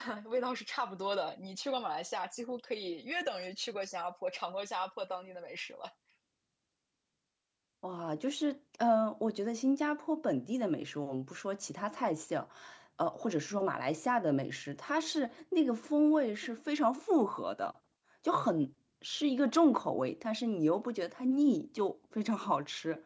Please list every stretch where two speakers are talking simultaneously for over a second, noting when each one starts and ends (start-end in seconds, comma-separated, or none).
none